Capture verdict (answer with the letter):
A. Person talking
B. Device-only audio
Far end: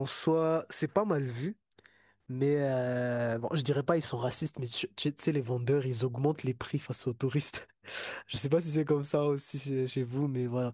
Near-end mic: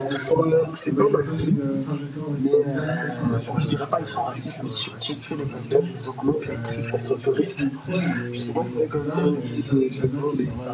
A